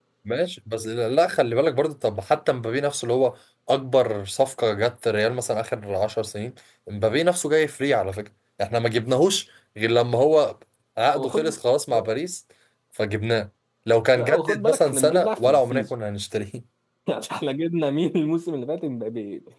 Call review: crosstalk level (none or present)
present